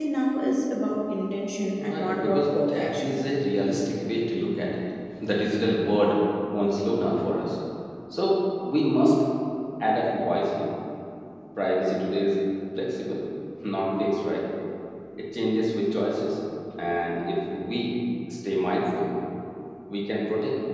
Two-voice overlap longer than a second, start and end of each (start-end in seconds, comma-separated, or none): 1.8-3.2